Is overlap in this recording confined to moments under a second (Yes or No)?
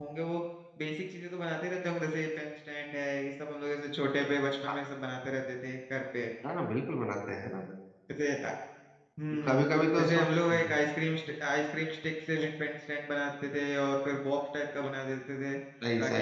Yes